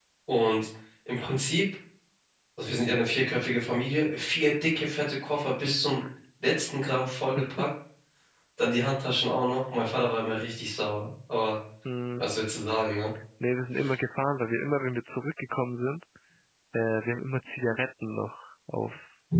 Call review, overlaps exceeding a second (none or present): none